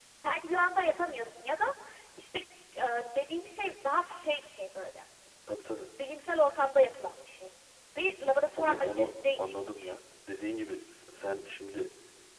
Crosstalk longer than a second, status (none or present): present